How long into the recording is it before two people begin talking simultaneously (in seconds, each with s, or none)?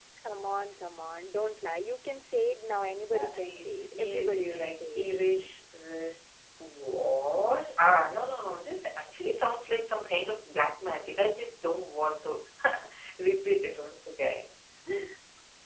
3.1 s